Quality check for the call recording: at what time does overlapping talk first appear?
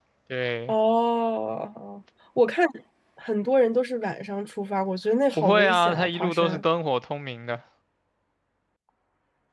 5.4 s

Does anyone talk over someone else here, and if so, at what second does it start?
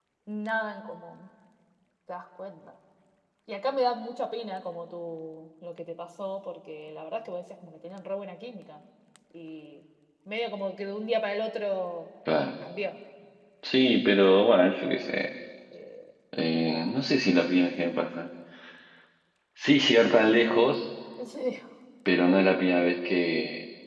none

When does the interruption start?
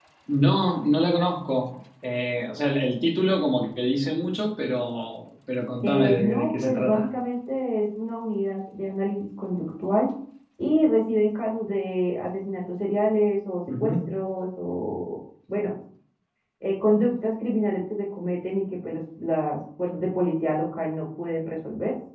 5.8 s

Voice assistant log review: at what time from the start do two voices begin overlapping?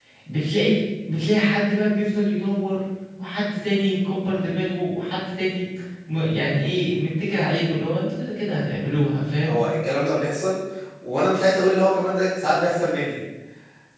none

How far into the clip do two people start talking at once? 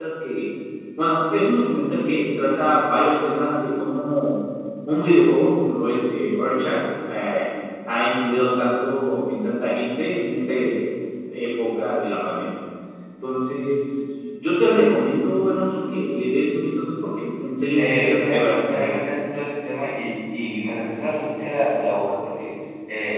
17.7 s

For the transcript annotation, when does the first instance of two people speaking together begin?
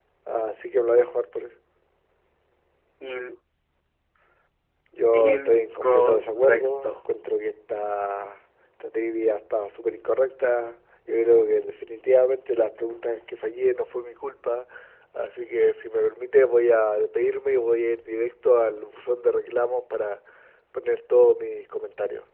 5.2 s

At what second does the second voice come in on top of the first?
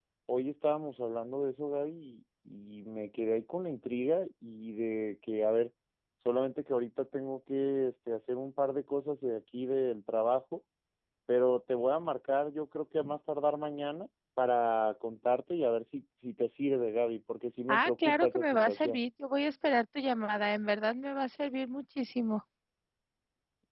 17.7 s

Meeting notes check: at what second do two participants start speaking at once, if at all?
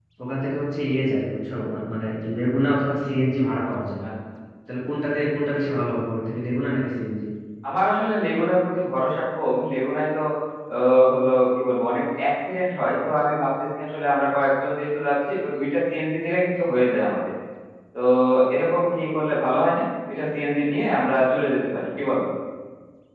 none

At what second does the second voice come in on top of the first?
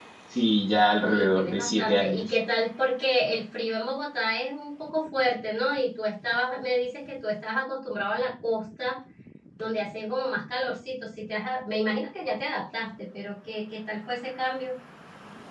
1.0 s

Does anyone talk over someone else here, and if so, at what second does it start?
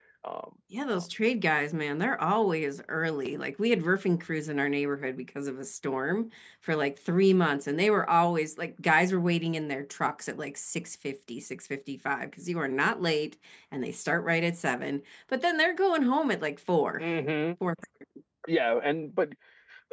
none

